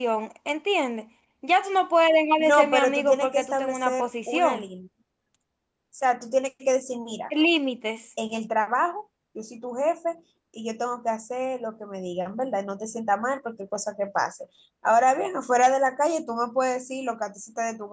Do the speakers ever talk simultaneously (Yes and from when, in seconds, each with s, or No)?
Yes, from 2.4 s